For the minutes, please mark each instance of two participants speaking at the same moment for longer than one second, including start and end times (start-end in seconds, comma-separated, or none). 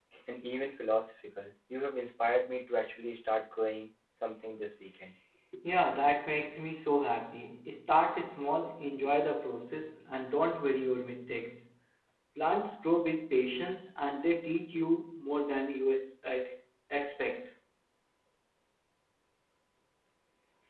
none